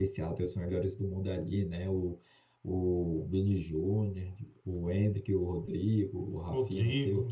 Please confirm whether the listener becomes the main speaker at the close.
No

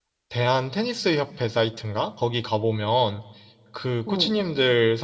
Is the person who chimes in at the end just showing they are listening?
Yes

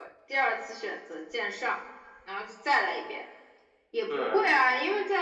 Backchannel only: Yes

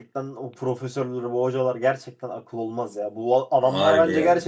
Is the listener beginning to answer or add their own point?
No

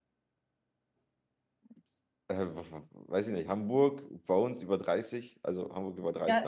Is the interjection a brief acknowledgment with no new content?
No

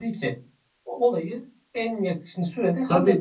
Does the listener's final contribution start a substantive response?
Yes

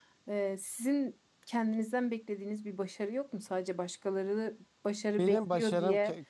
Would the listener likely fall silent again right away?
No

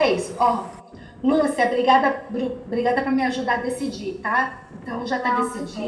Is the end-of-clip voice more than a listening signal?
Yes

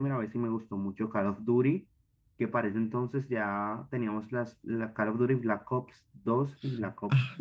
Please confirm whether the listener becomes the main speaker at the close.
Yes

